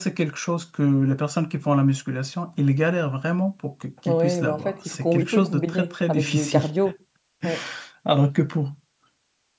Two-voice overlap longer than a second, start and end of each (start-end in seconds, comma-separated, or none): 4.1-6.6